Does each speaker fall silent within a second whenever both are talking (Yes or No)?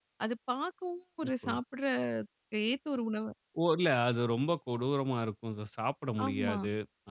Yes